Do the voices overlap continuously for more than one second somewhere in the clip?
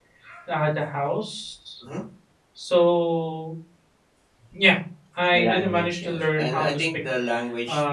Yes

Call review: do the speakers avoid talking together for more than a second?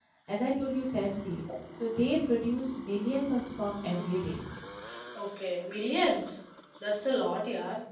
Yes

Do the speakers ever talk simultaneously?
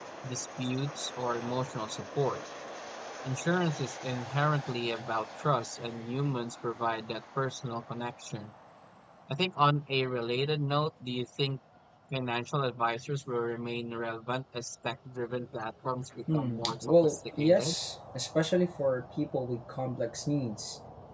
Yes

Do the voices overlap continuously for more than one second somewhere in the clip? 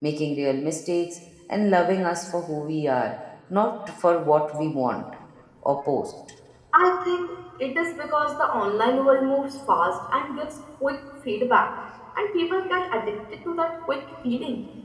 No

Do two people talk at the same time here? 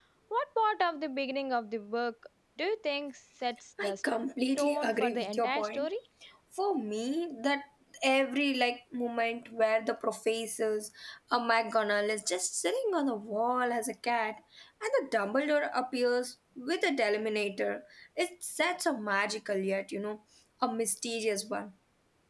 Yes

